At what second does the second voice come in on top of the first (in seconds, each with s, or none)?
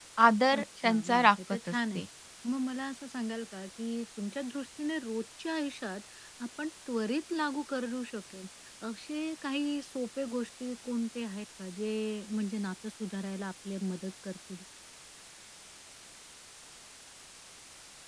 0.6 s